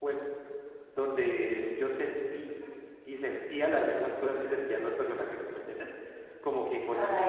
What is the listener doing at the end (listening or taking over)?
listening